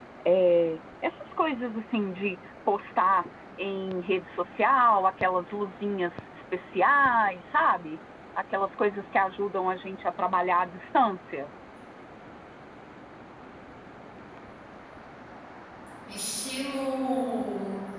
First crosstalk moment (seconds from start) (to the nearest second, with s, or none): none